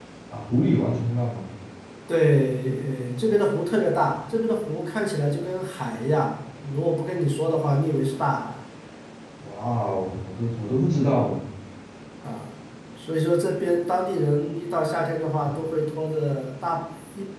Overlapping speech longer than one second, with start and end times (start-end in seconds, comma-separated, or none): none